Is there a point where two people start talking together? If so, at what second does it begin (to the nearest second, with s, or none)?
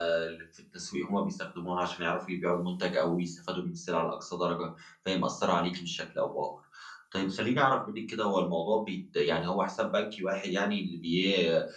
none